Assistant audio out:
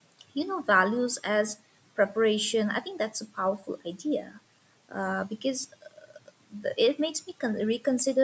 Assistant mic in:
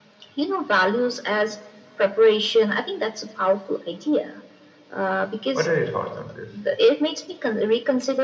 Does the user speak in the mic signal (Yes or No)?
Yes